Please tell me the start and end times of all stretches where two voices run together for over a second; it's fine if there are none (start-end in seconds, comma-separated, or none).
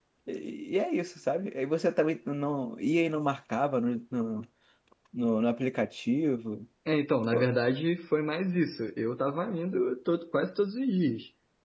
none